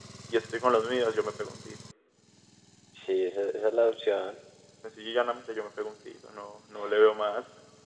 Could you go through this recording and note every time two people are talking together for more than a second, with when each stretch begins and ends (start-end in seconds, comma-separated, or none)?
none